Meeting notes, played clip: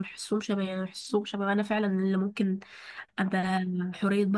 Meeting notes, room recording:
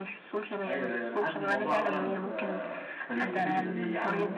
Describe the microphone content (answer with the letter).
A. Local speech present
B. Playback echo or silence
A